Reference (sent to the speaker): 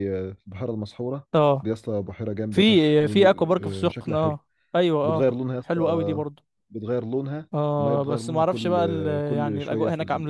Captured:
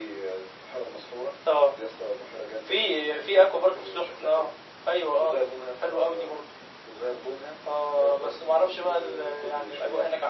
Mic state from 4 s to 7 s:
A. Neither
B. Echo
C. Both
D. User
B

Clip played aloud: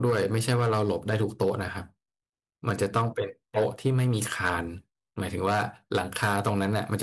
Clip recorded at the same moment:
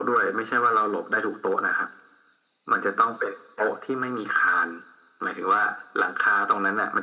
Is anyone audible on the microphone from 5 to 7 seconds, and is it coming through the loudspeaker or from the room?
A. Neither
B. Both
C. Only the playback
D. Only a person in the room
C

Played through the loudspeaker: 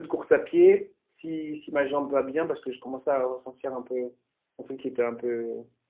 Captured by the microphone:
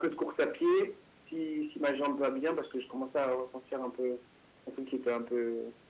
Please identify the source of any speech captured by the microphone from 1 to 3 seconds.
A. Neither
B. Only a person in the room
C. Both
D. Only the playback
D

